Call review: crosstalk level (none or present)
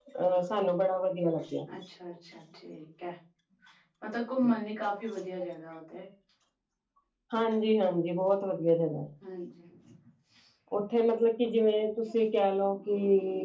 none